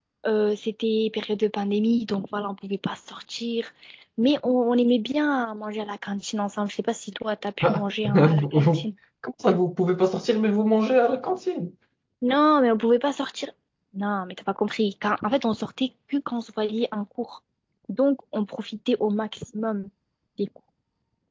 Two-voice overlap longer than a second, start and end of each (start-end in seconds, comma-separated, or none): 7.6-8.8